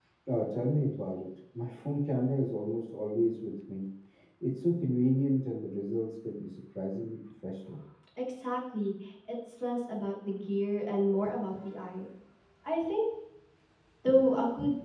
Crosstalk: none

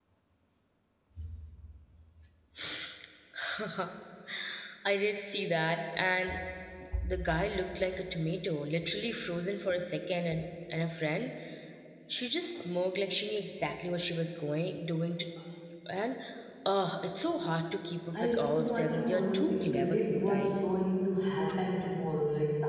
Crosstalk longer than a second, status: present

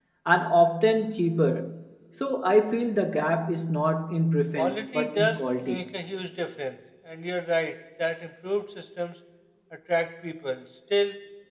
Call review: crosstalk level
present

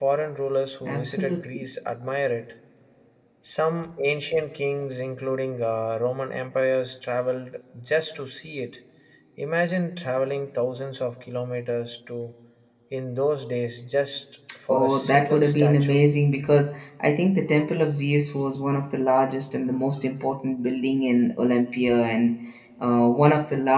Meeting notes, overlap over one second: present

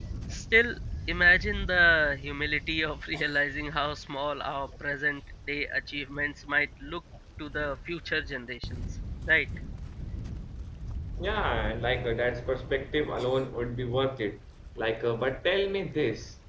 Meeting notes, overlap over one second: none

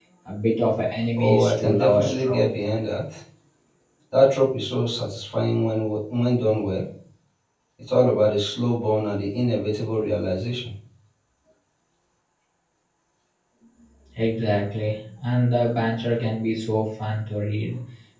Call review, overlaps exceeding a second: present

